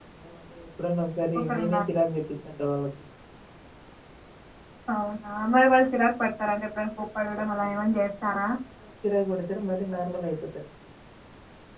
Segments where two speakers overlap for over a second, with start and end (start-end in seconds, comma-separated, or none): none